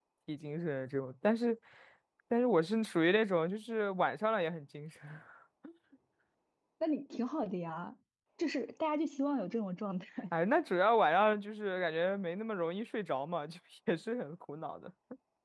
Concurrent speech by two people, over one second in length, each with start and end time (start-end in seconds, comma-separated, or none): none